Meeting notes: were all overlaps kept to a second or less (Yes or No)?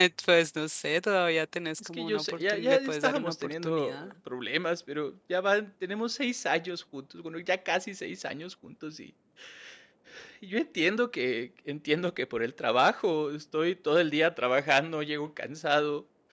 No